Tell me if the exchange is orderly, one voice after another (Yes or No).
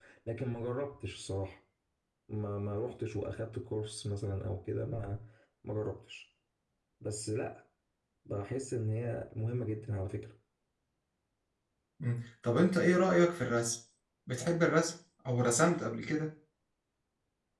Yes